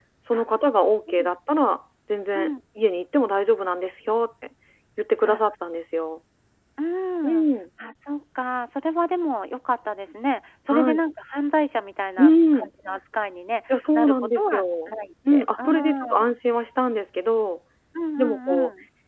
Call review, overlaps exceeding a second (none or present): present